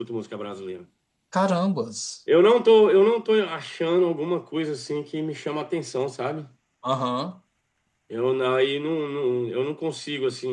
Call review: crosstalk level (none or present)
none